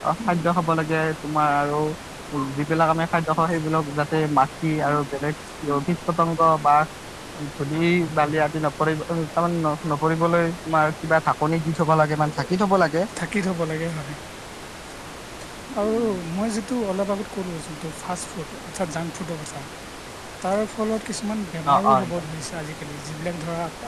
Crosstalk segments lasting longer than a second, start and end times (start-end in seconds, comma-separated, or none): none